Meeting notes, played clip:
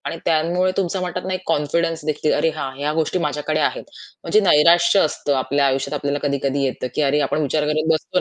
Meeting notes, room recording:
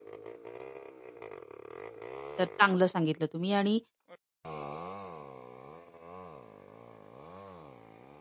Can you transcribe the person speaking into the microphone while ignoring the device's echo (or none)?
तर चांगलं सांगितलं तुम्ही आणि